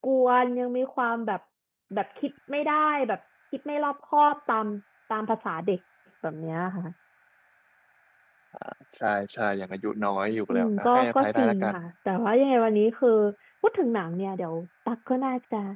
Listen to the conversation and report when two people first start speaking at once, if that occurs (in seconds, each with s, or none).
10.5 s